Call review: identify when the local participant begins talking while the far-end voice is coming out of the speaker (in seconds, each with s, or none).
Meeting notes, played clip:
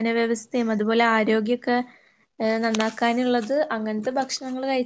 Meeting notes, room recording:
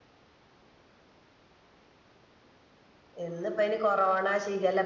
3.2 s